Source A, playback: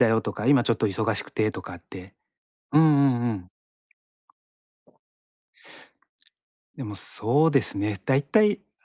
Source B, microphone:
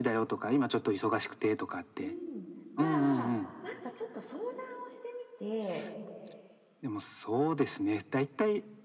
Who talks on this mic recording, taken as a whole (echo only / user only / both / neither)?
both